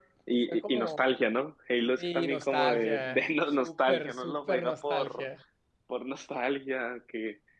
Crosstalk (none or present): present